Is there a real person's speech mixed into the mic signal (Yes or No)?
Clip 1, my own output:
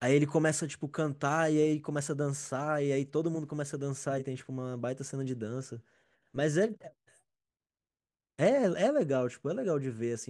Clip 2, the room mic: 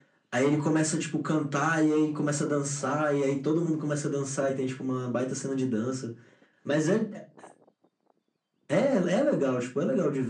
No